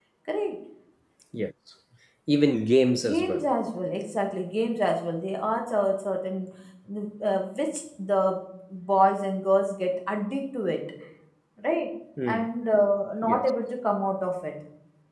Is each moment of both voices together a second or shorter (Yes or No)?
Yes